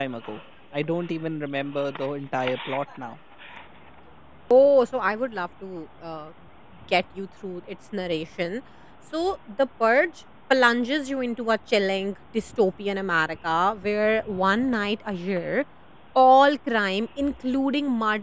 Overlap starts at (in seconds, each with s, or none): none